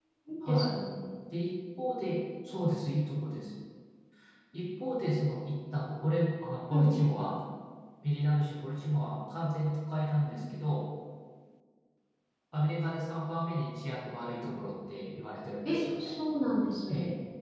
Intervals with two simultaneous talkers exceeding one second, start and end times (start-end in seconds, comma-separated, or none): none